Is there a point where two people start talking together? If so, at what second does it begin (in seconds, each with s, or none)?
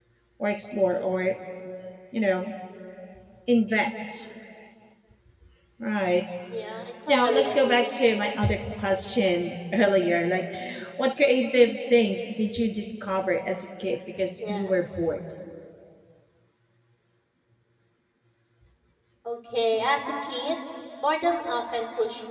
7.1 s